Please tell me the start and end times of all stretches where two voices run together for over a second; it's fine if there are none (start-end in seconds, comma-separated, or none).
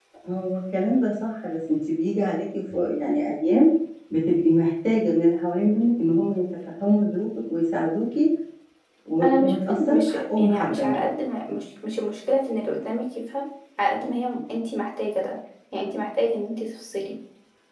9.2-11.1